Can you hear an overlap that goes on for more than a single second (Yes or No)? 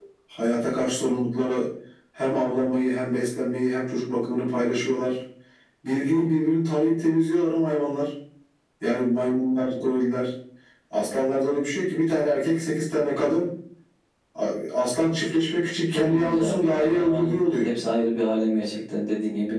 Yes